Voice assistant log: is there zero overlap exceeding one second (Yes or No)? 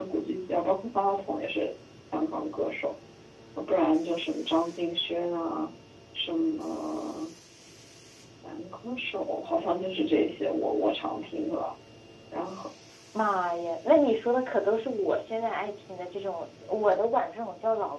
Yes